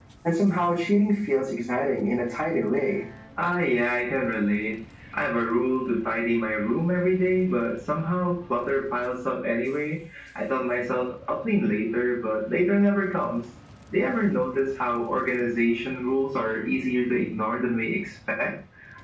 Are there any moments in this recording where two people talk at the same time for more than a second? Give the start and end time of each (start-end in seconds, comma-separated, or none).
none